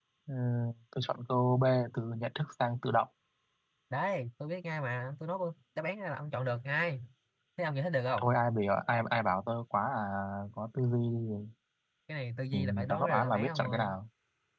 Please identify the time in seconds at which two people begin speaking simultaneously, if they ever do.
12.5 s

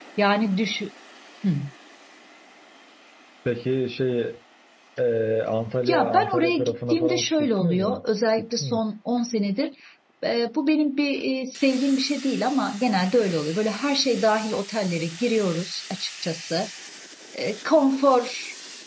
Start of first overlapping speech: 5.9 s

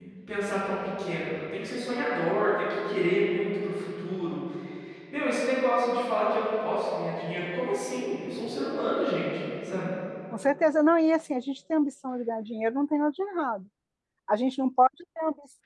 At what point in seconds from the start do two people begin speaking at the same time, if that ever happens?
none

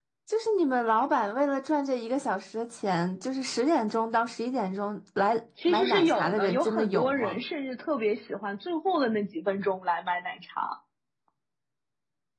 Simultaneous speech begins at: 5.6 s

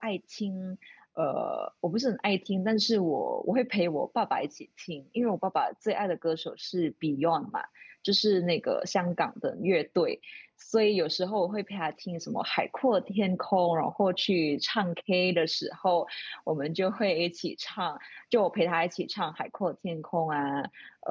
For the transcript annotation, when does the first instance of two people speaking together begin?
none

